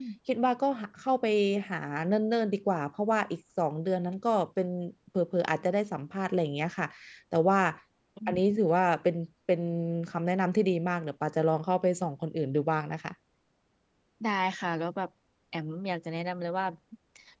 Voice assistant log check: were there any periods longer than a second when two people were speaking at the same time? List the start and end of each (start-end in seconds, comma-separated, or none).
none